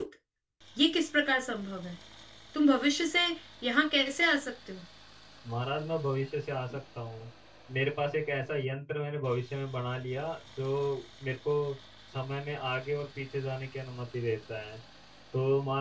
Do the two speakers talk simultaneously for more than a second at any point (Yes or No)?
No